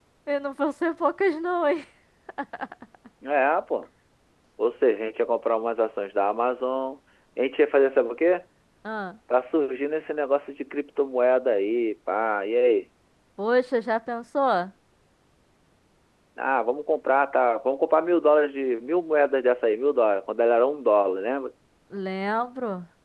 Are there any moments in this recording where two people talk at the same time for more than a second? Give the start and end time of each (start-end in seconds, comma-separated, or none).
none